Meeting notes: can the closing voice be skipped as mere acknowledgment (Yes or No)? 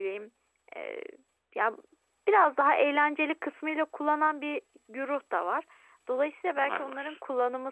Yes